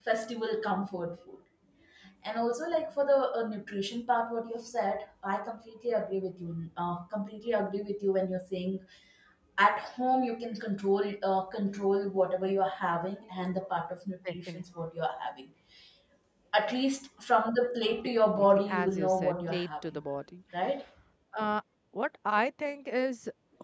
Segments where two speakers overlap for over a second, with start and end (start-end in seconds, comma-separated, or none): 18.3-20.0